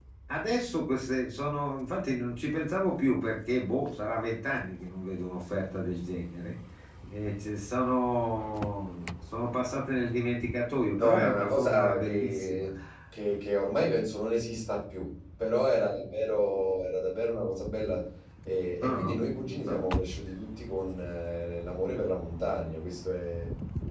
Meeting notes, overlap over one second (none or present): present